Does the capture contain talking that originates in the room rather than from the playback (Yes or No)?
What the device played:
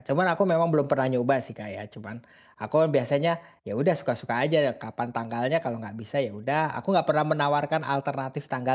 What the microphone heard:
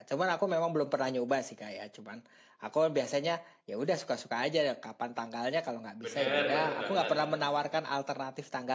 Yes